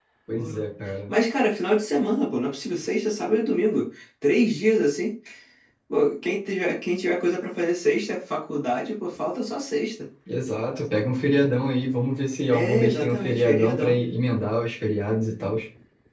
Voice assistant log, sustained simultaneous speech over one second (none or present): present